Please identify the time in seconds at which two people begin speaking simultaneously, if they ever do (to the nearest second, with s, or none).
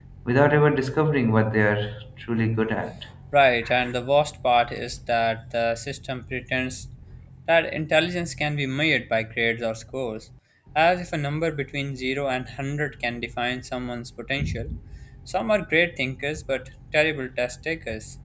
none